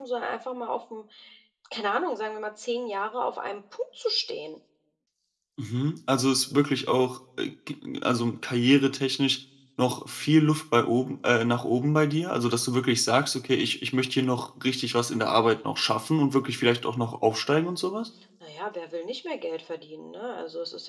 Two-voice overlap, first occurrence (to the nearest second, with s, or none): none